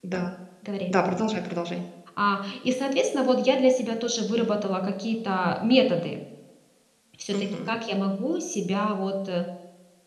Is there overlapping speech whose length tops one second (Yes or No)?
No